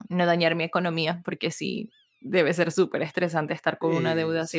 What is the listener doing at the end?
taking over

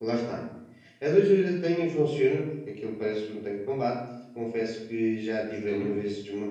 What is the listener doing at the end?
listening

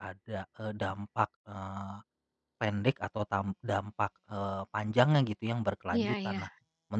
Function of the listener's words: listening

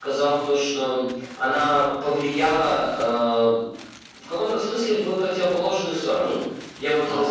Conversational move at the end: listening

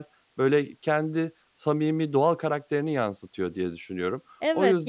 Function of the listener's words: taking over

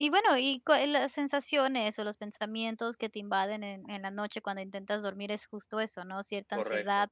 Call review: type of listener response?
listening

